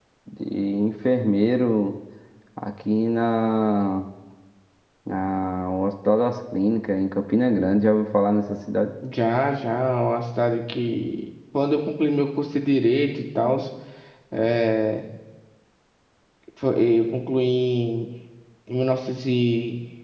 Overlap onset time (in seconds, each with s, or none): none